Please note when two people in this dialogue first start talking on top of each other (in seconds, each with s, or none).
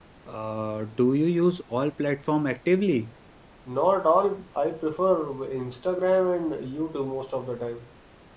none